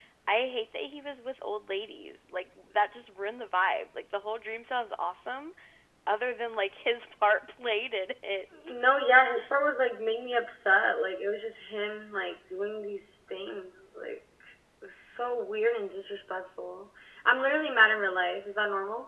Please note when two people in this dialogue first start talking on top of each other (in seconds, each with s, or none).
none